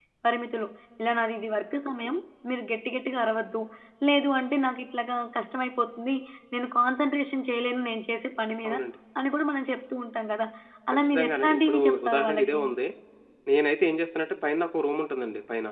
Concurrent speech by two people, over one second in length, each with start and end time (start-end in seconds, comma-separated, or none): 10.9-12.6